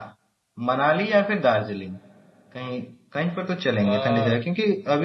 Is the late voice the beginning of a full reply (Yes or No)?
No